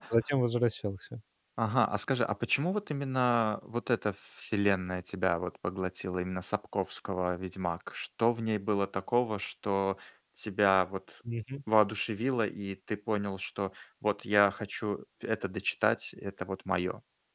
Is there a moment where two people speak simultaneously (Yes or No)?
No